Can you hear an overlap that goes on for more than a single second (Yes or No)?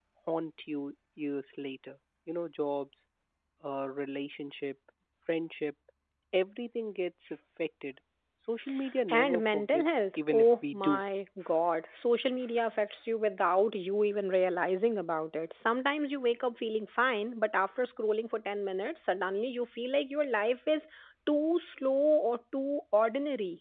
Yes